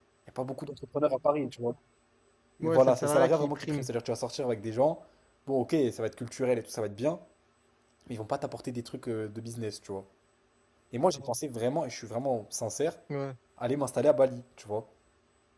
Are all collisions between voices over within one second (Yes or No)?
No